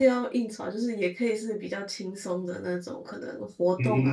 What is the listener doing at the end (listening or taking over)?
taking over